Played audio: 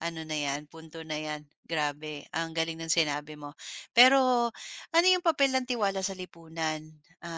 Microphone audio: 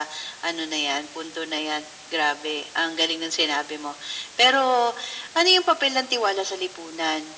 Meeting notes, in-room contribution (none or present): none